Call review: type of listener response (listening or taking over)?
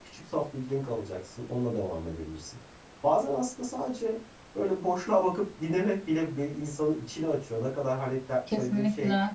listening